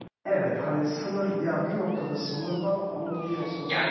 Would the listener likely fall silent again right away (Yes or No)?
No